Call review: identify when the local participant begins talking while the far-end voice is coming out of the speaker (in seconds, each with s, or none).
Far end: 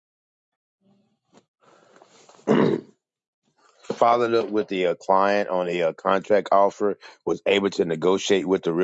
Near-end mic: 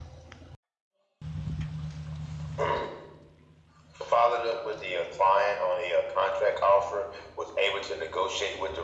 none